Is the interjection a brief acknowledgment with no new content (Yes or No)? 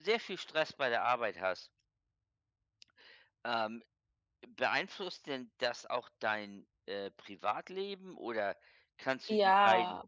Yes